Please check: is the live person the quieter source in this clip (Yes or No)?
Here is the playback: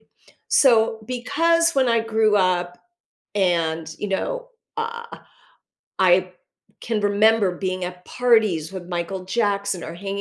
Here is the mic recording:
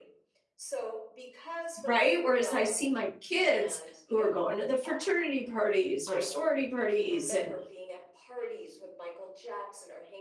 No